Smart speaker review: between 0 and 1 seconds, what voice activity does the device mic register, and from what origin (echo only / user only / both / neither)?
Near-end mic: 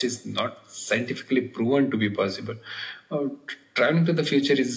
echo only